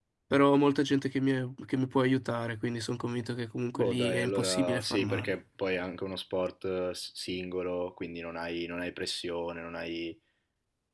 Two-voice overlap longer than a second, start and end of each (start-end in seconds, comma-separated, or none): 3.8-5.3